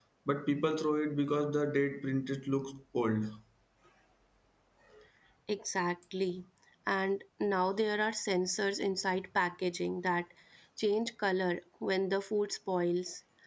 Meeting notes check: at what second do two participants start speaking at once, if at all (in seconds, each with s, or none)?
none